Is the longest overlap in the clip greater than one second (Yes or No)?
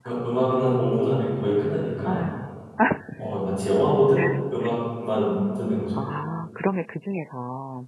No